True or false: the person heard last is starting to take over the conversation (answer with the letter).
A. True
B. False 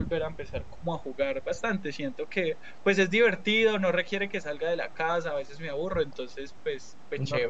A